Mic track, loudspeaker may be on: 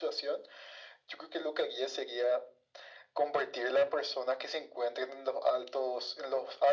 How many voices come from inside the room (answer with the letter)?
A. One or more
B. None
B